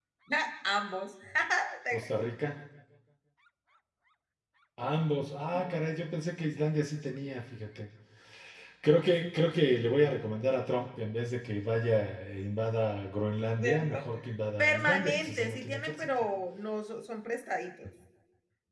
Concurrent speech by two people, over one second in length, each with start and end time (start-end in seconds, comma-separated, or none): 14.6-16.1